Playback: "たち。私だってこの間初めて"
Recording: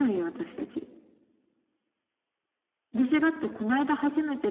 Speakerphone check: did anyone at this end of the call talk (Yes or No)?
No